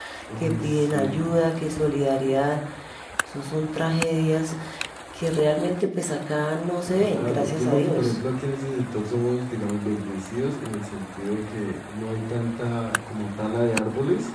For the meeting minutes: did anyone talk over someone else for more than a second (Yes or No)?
Yes